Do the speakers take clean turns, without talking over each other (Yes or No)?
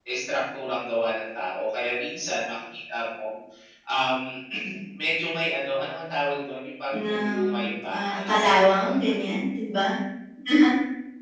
No